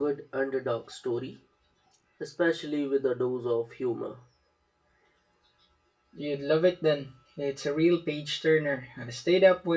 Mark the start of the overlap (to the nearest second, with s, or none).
none